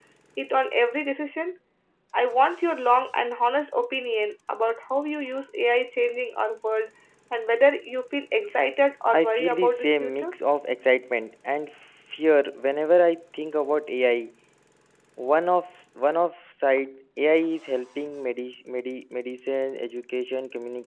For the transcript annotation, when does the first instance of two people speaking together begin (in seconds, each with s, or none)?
9.1 s